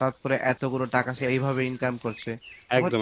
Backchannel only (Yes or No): Yes